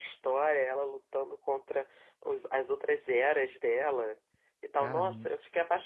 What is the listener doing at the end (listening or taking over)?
listening